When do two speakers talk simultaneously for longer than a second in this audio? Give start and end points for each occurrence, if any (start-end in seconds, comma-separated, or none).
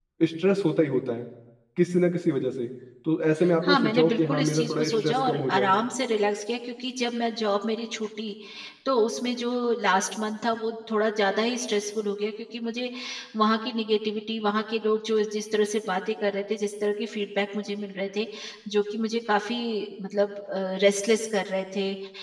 3.6-5.7